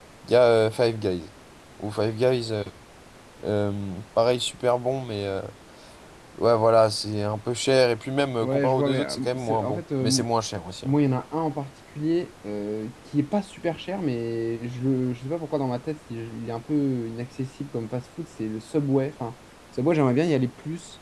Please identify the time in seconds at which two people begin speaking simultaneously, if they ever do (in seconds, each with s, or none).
8.4 s